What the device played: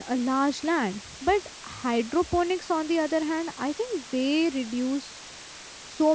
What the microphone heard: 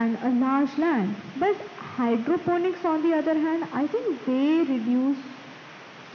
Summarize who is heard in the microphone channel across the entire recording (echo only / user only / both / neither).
echo only